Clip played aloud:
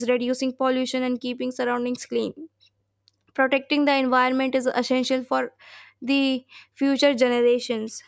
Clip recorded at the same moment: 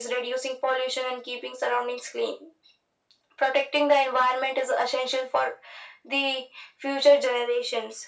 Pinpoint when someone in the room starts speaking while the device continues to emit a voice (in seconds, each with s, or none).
none